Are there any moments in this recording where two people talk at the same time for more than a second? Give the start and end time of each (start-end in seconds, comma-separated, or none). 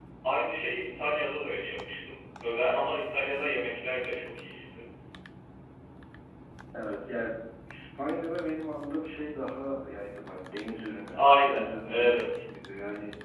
11.1-12.3